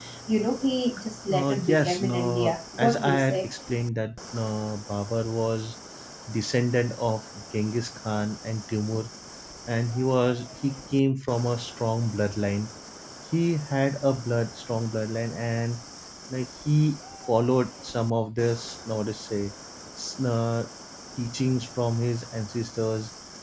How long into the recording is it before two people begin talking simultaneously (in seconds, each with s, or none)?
1.3 s